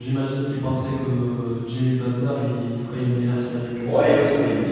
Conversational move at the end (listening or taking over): taking over